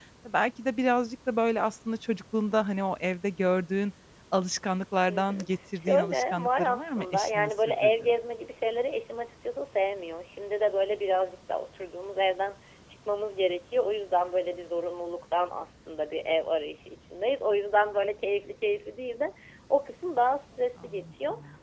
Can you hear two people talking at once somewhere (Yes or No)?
Yes